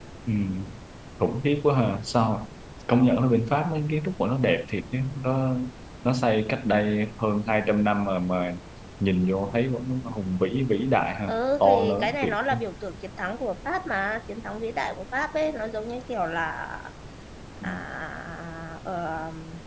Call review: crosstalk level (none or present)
present